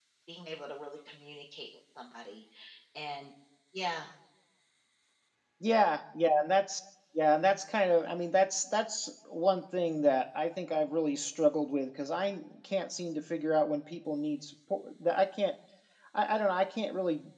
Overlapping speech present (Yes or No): No